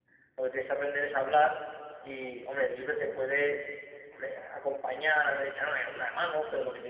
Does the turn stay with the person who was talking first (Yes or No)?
Yes